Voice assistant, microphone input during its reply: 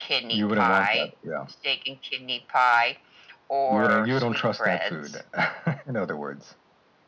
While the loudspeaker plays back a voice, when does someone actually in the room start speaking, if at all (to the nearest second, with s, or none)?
none